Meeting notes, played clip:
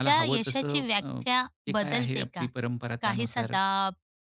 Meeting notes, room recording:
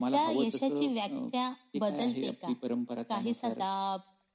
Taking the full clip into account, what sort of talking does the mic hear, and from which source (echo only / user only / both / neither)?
echo only